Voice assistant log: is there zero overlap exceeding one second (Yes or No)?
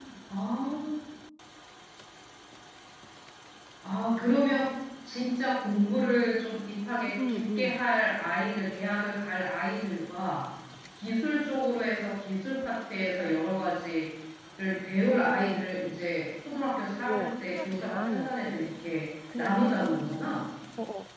No